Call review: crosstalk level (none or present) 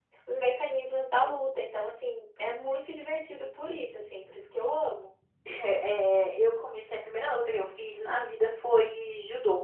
none